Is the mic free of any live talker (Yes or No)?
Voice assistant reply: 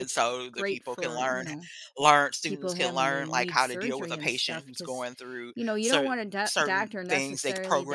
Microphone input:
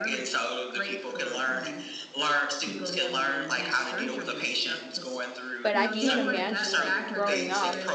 No